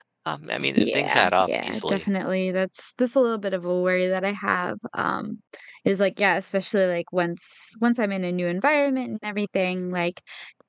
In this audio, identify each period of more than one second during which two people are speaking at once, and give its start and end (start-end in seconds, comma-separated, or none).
0.8-2.0